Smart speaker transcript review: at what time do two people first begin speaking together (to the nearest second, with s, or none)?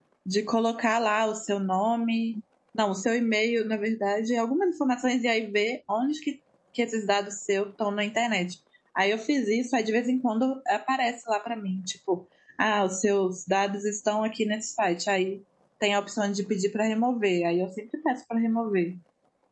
none